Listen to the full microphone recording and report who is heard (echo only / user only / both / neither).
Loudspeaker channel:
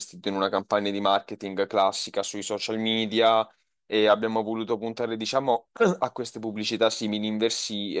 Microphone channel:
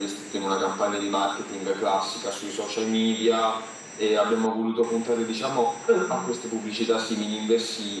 echo only